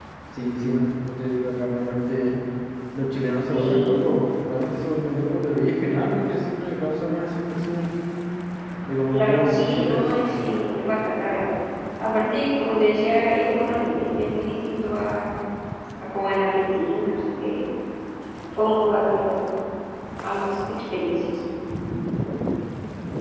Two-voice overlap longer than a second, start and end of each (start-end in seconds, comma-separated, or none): 9.1-10.3